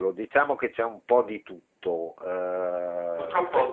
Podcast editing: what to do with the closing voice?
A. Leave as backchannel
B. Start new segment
B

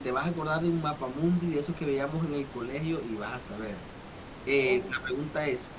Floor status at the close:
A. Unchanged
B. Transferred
A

